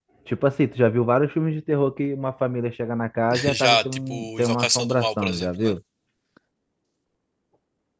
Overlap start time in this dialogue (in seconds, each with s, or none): 3.5 s